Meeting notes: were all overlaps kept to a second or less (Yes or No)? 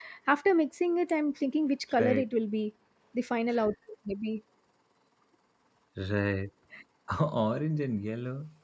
Yes